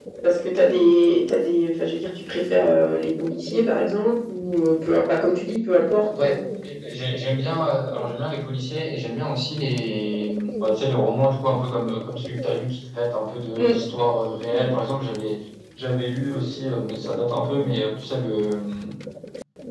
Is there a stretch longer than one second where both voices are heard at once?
No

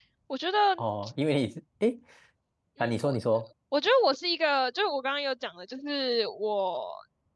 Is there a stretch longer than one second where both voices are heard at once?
No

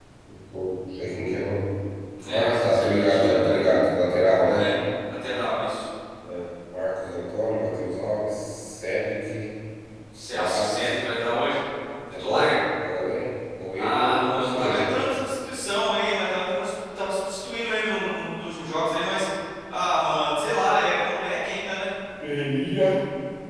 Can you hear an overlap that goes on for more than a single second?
Yes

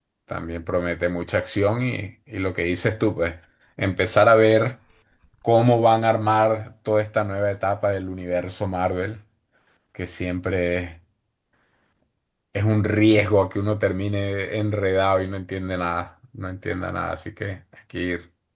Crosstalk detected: No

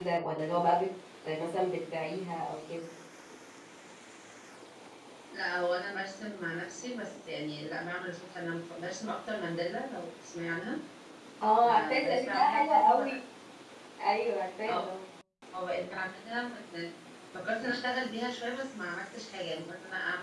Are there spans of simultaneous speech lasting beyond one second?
Yes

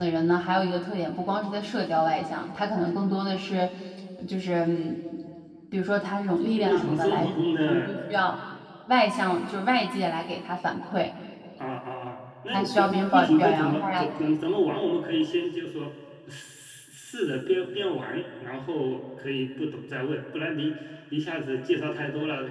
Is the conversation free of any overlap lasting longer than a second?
No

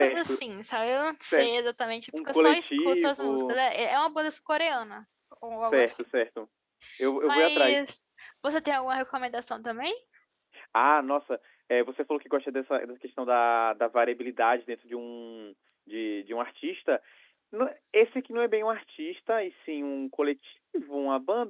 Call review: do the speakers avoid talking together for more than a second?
No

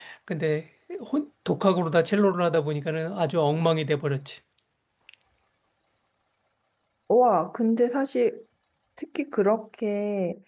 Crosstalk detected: No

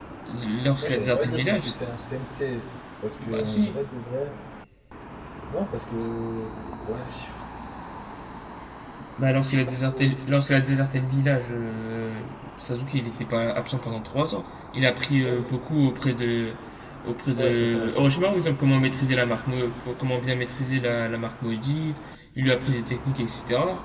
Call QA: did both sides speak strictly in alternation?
No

